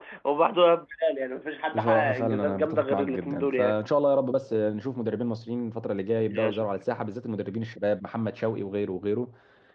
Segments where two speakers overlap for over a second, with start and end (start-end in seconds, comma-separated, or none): 1.7-3.8